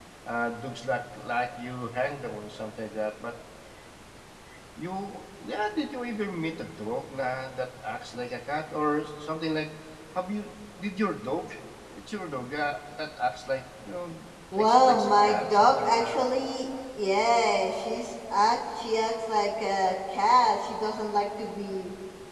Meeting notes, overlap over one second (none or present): present